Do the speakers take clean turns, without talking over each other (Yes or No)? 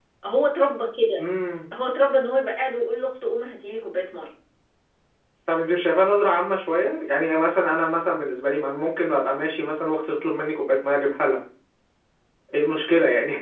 Yes